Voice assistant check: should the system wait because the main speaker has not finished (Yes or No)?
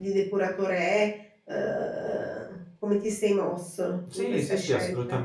No